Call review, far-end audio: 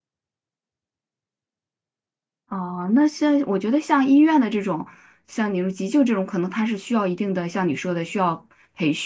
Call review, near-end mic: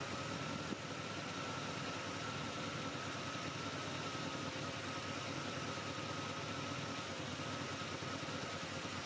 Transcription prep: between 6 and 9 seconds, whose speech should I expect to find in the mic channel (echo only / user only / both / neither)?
neither